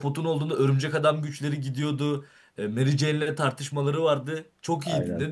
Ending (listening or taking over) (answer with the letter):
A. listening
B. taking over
B